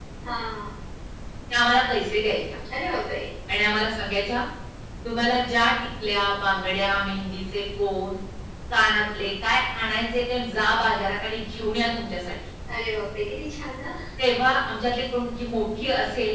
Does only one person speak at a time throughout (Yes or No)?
Yes